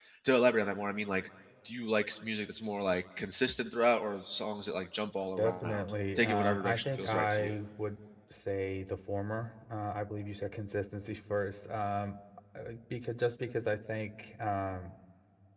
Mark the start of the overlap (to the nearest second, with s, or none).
5 s